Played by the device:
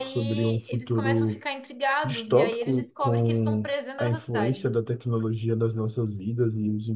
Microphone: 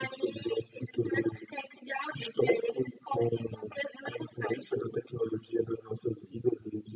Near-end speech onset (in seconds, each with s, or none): none